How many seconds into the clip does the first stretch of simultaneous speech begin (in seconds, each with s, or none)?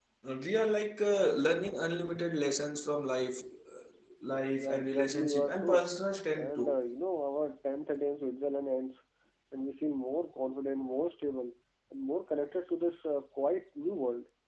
4.6 s